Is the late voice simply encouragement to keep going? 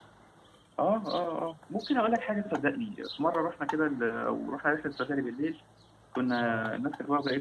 Yes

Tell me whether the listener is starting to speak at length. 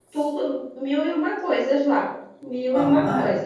Yes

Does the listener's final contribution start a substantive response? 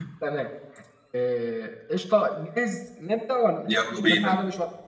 No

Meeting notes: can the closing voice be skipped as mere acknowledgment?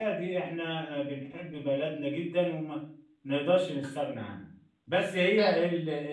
Yes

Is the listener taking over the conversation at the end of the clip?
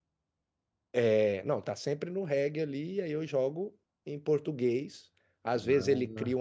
No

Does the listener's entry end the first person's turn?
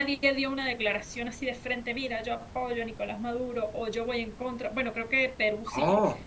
No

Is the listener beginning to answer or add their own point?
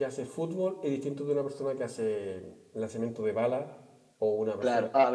Yes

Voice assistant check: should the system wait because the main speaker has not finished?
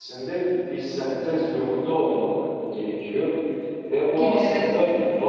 Yes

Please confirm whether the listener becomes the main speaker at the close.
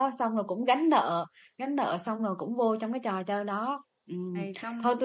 No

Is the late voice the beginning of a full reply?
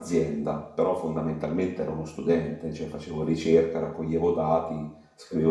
No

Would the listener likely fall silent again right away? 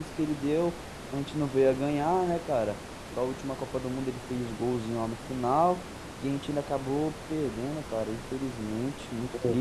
Yes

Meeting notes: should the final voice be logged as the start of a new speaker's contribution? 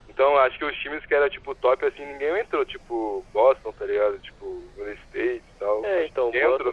Yes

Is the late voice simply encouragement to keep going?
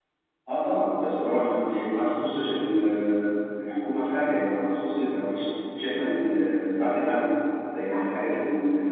Yes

